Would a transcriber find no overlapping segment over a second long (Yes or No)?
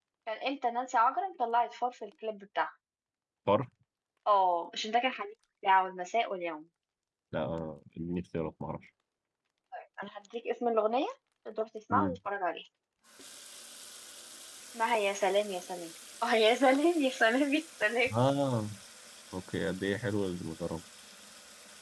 Yes